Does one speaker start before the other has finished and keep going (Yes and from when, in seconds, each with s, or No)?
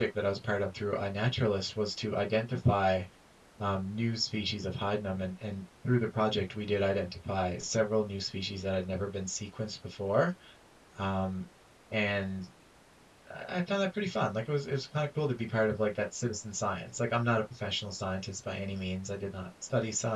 No